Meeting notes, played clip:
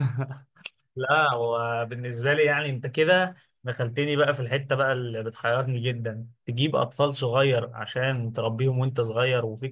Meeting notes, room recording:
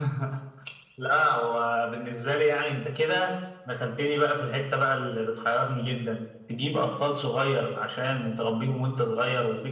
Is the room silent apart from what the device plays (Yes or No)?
Yes